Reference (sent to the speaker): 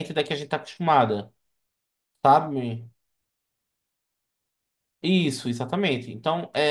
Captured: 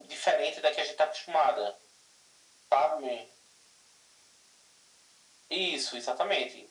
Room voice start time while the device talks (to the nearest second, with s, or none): none